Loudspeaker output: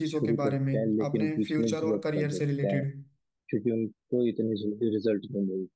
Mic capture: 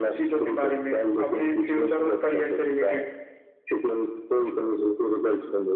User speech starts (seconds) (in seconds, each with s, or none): none